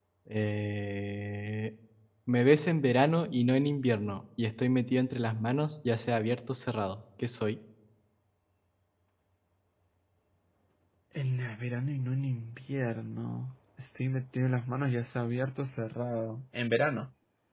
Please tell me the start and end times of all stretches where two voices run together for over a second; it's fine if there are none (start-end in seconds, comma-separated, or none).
none